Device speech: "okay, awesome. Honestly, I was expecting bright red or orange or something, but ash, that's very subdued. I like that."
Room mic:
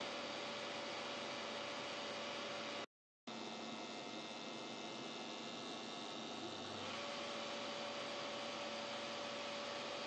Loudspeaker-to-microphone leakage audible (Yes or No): No